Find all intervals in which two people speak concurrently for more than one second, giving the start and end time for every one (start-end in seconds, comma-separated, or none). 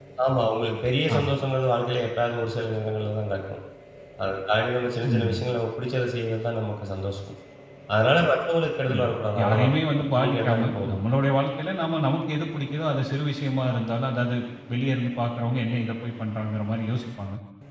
8.9-11.0